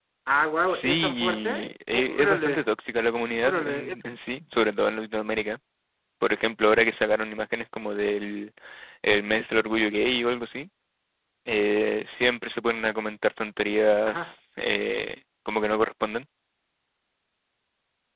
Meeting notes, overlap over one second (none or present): present